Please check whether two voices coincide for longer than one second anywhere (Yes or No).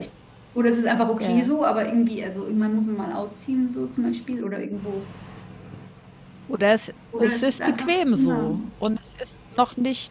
Yes